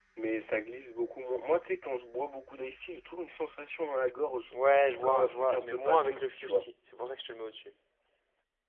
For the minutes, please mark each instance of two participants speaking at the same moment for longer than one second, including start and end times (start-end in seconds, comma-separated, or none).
5.0-6.7